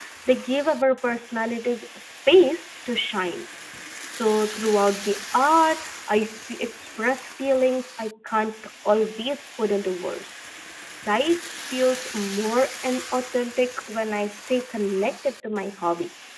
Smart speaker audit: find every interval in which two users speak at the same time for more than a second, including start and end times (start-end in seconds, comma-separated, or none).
none